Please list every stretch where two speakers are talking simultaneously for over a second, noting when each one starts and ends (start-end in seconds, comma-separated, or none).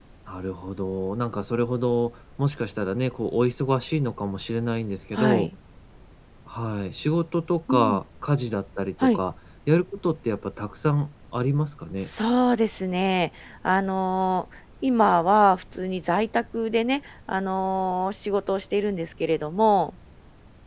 none